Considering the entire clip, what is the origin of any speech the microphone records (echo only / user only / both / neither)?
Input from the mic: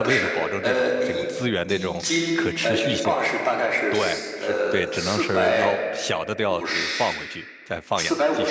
both